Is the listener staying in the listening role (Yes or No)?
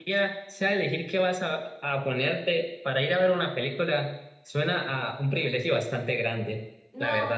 No